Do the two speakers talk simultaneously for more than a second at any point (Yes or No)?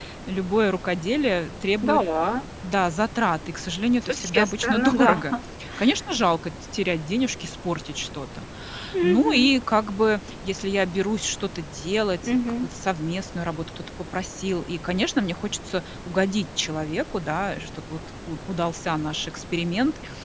Yes